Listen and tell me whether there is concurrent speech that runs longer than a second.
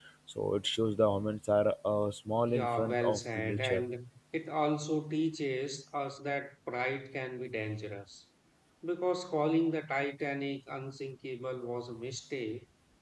Yes, from 2.5 s

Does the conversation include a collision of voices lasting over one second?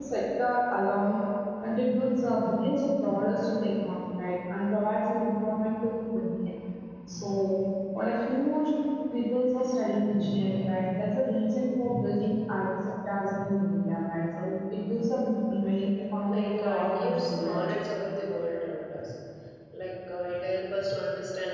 Yes, from 15.9 s

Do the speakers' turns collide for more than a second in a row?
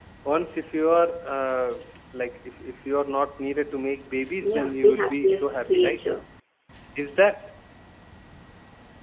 Yes, from 4.4 s

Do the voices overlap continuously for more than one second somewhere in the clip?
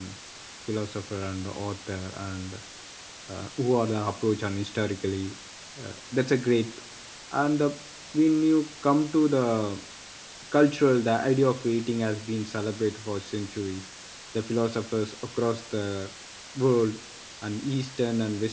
No

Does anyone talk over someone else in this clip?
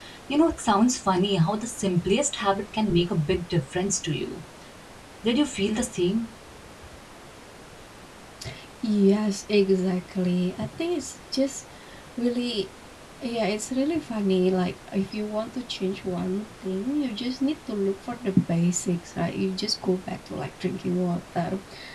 No

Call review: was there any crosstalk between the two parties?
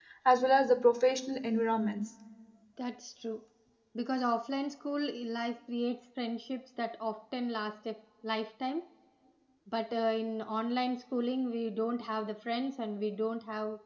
No

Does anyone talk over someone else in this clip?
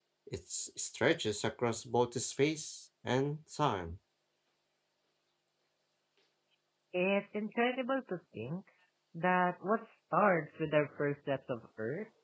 No

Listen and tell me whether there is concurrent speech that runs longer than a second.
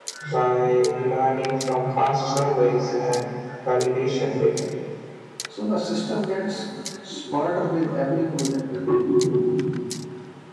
No

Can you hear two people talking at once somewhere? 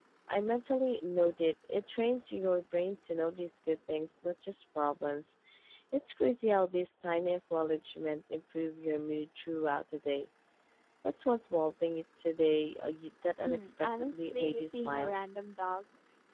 Yes, from 13.4 s

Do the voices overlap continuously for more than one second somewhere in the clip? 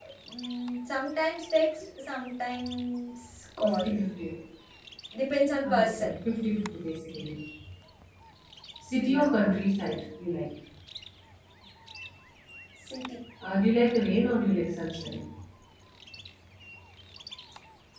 No

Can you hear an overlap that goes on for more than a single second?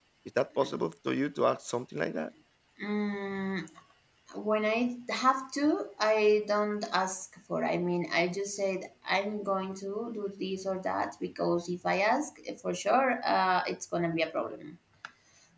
No

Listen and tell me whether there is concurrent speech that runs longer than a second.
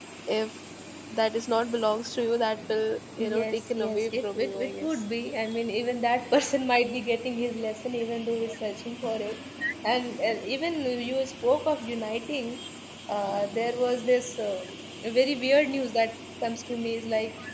Yes, from 3.2 s

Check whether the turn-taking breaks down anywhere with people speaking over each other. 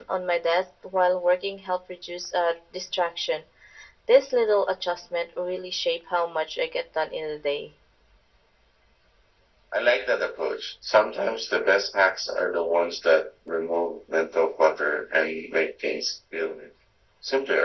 No

